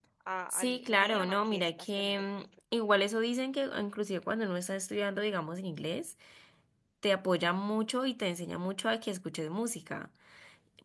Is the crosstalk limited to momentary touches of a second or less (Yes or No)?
No